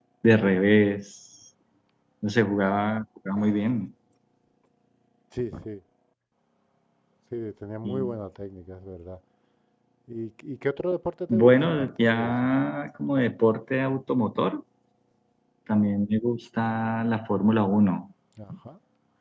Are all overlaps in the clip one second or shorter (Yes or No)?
No